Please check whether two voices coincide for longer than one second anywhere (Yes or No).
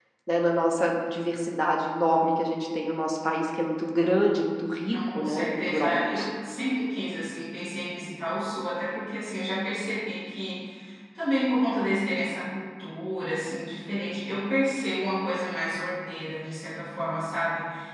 Yes